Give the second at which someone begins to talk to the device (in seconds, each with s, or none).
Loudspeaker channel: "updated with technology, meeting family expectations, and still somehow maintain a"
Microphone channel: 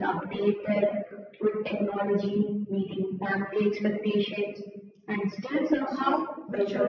5.8 s